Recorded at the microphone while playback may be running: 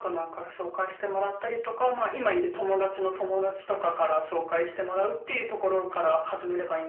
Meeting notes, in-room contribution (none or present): none